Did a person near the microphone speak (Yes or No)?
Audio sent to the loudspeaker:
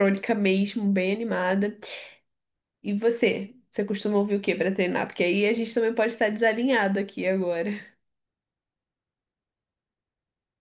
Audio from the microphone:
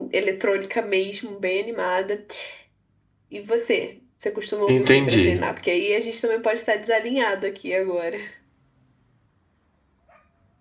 Yes